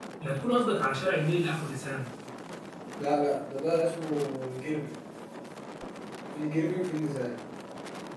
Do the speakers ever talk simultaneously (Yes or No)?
No